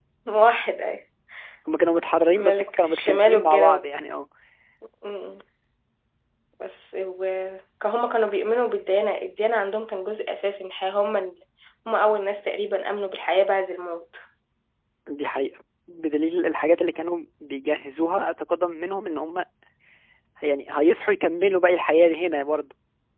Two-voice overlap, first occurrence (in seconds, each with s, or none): 2.3 s